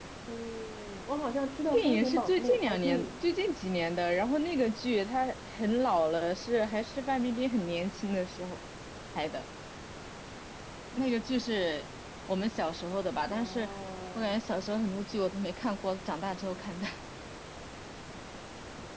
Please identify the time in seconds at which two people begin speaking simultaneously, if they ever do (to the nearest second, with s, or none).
2 s